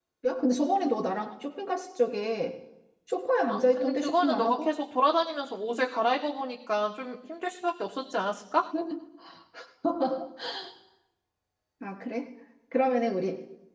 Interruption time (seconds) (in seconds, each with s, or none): 3.5 s